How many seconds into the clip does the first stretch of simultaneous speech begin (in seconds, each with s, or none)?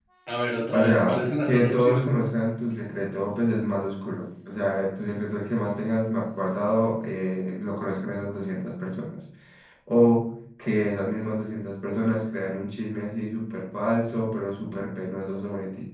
0.7 s